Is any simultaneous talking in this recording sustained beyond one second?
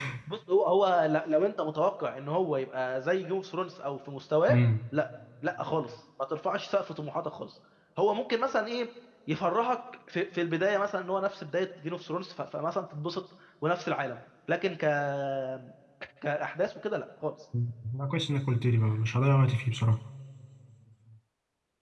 No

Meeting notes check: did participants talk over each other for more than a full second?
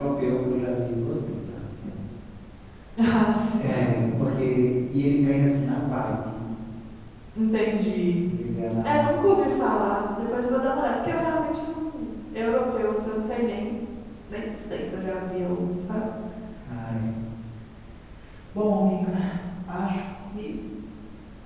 No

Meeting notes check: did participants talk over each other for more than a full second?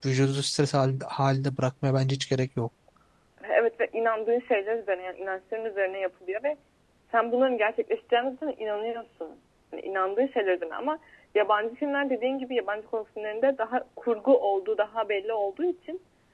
No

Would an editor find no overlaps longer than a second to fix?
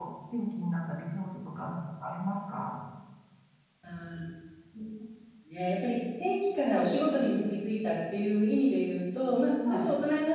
Yes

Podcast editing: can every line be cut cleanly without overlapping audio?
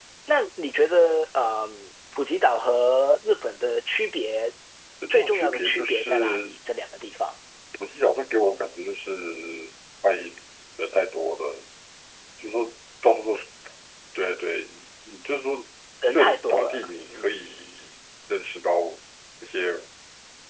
No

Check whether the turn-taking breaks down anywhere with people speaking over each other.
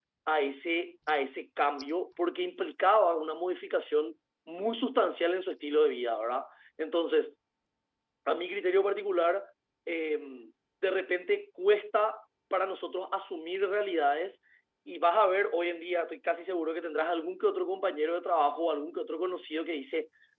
No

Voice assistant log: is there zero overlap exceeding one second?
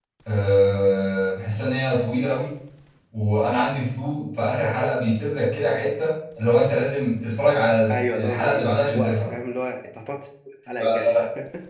No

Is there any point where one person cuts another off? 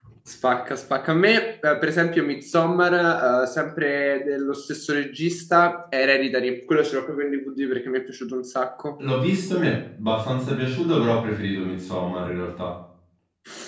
No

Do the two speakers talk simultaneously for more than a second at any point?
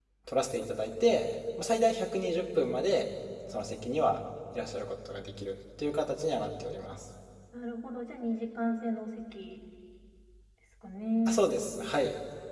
No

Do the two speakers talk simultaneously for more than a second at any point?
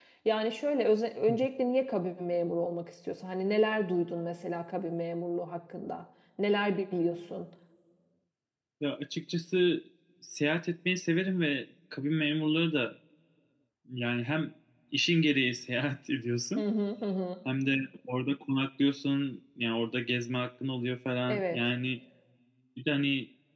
No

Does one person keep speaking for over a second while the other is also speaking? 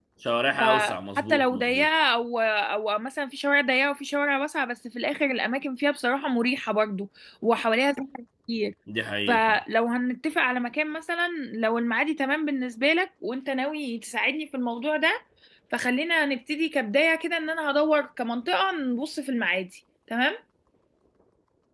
Yes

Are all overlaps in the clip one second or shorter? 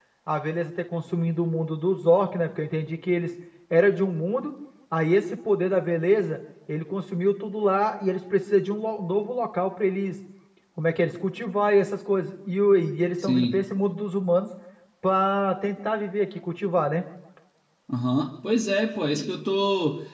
Yes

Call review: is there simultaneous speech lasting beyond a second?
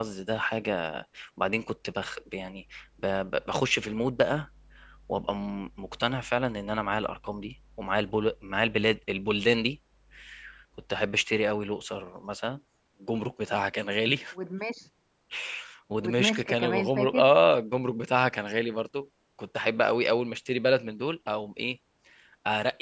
Yes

